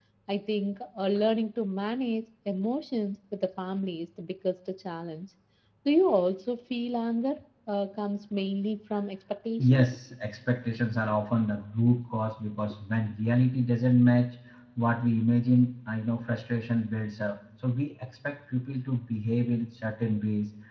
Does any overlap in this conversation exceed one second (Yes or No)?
No